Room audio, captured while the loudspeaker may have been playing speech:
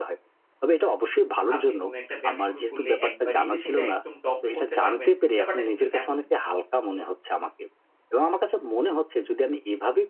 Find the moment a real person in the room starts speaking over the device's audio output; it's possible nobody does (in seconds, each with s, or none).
1.5 s